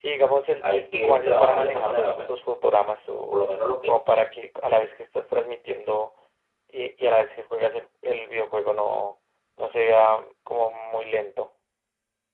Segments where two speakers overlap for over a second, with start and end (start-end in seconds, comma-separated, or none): 0.6-2.3